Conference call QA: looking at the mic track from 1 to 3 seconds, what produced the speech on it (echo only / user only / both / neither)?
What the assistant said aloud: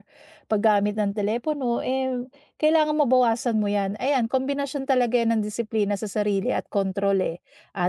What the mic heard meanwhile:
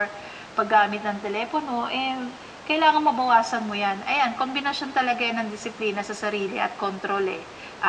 echo only